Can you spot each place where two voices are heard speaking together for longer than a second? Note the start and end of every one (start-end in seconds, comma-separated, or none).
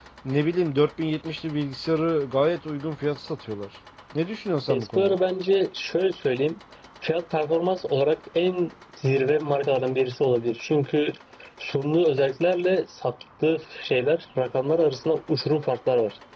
none